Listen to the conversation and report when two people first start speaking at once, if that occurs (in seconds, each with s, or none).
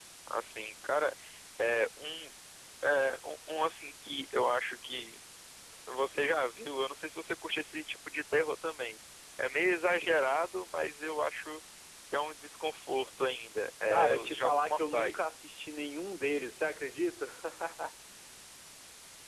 13.9 s